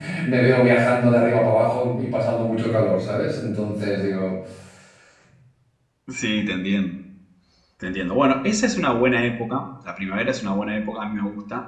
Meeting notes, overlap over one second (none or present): none